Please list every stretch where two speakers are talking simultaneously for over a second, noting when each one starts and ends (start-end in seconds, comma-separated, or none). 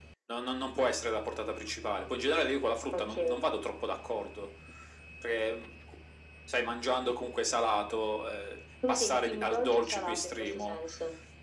8.9-10.8